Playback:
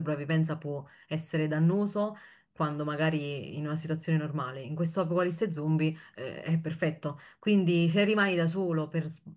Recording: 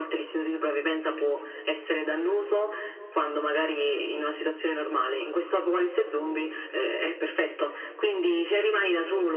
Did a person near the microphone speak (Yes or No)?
No